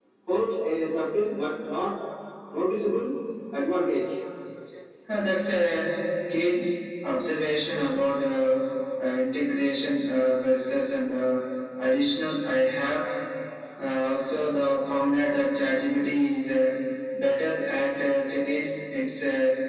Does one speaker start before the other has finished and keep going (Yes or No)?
No